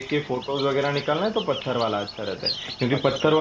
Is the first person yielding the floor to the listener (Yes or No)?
No